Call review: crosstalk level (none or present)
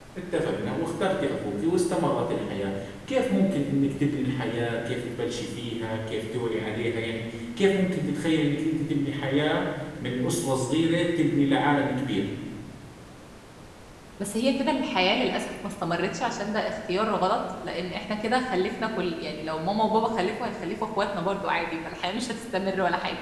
none